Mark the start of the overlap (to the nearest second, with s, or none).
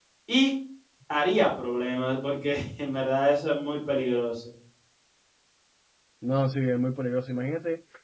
none